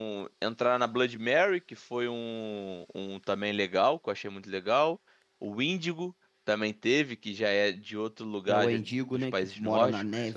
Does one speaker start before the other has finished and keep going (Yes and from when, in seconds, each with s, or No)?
Yes, from 8.5 s